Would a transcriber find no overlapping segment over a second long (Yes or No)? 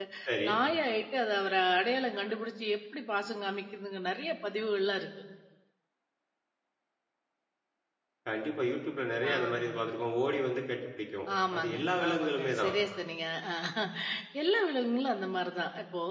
No